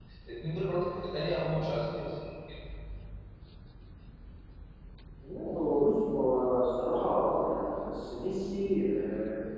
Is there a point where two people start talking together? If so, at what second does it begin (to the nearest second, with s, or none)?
none